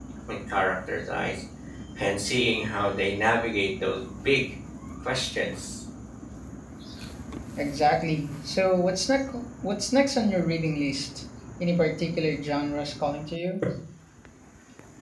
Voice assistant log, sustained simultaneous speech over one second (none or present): none